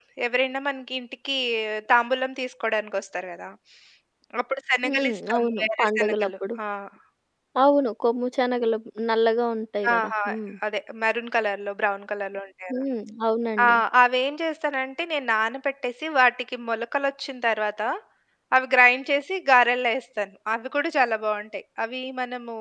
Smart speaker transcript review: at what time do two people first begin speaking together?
4.8 s

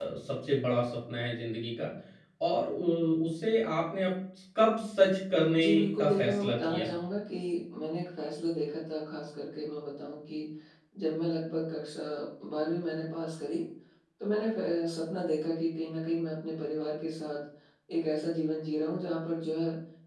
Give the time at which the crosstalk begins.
5.5 s

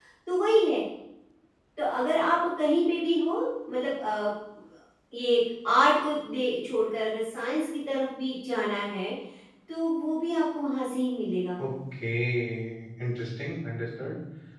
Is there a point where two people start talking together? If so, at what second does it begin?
none

